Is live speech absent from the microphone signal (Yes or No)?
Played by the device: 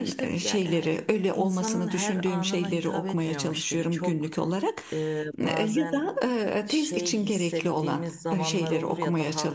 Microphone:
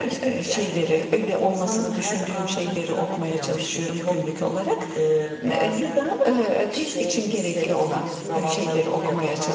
No